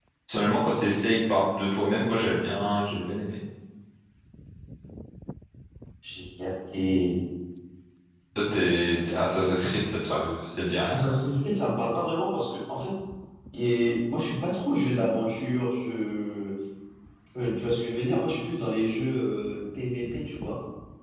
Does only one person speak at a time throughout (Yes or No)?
Yes